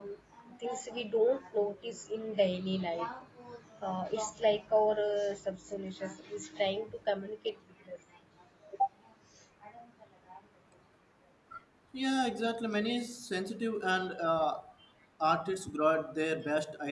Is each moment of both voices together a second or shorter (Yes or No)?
Yes